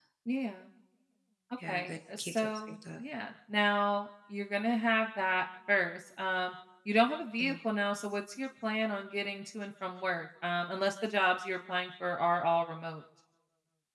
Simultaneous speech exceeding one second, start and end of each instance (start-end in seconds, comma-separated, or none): 1.7-3.0